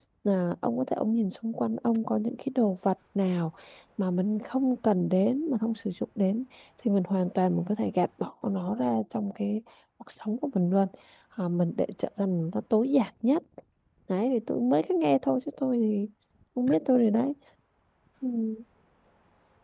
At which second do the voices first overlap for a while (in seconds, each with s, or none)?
none